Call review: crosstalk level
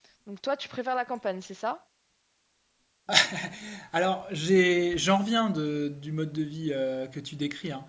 none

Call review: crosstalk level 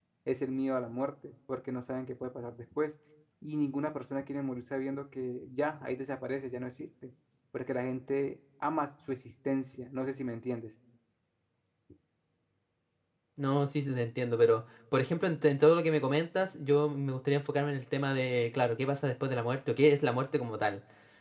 none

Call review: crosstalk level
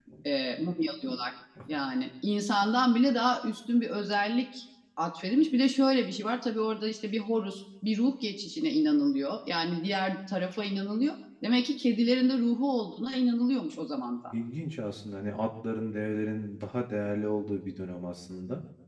none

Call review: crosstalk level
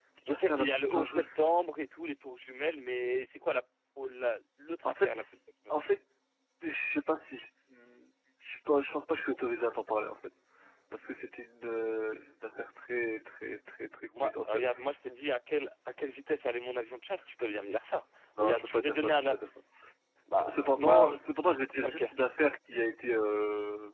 present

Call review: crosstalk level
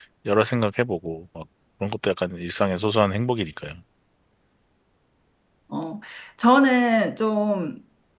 none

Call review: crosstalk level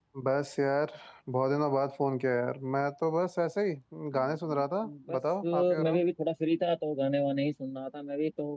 present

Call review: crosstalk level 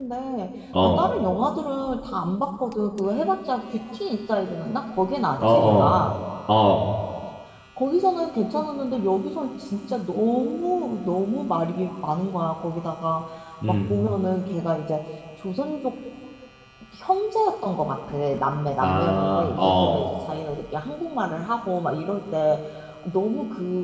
present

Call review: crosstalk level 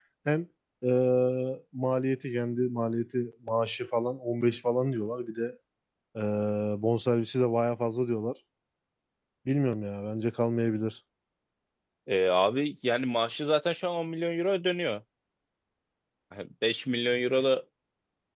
none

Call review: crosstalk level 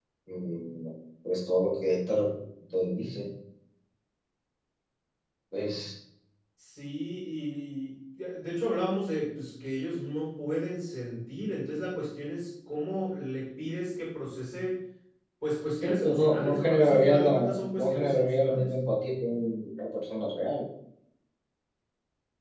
present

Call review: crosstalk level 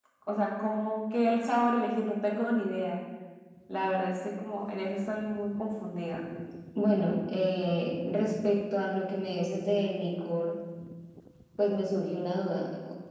none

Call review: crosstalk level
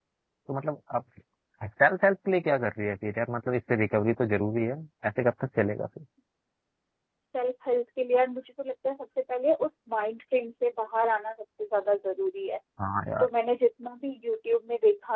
none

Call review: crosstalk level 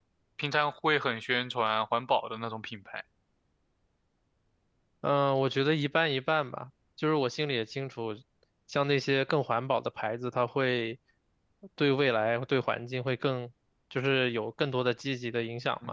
none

